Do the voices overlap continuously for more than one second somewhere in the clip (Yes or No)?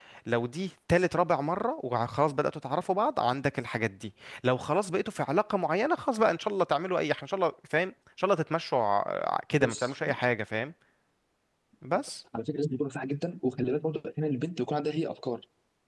No